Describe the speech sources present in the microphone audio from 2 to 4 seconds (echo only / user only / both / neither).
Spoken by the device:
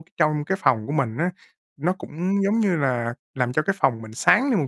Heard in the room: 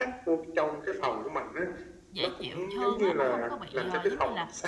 both